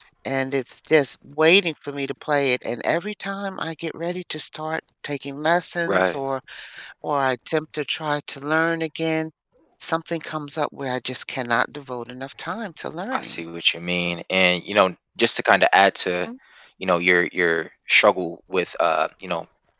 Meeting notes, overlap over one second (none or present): none